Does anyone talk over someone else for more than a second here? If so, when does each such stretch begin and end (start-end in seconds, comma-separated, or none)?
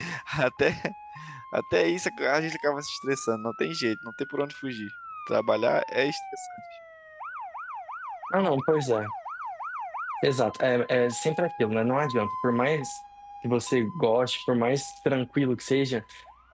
none